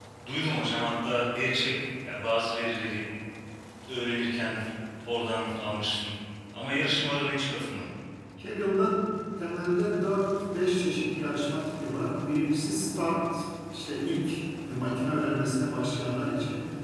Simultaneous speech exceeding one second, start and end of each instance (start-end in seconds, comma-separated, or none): none